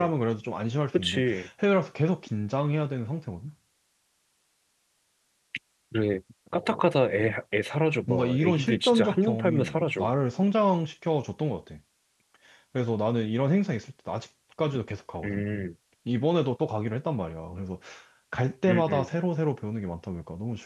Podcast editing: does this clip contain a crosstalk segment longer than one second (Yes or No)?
Yes